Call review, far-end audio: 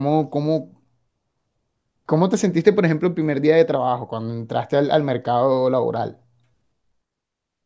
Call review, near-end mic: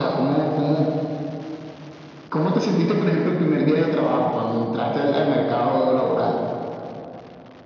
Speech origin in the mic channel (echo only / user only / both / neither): echo only